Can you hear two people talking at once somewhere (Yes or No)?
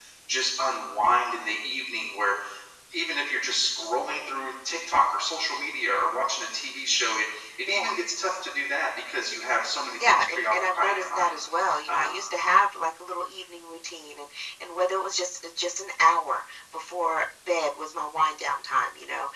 Yes